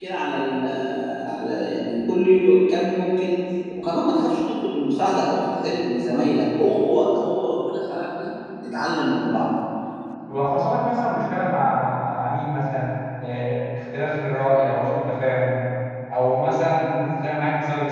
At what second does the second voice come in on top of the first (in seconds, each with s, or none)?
none